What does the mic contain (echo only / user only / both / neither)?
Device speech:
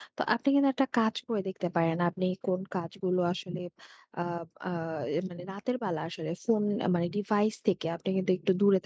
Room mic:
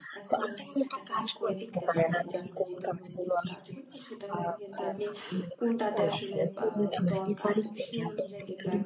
both